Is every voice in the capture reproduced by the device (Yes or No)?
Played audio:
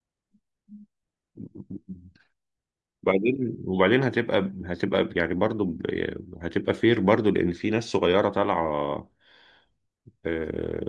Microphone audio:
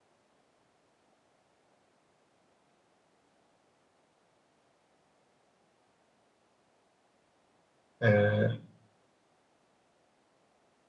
No